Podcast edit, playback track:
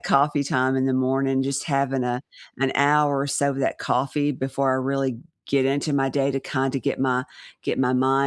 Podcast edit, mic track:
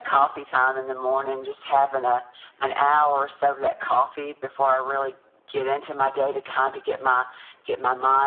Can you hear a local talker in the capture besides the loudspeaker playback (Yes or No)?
No